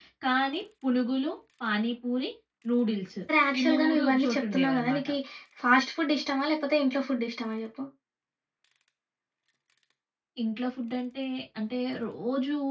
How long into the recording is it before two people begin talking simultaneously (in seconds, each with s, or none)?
3.6 s